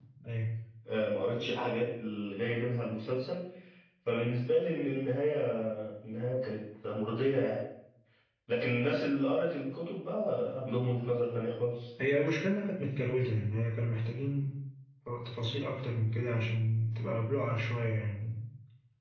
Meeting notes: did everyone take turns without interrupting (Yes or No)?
Yes